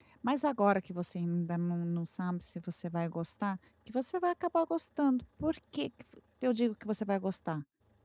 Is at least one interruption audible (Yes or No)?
No